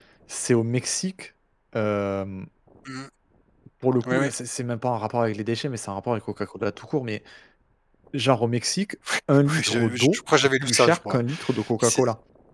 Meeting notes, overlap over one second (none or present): present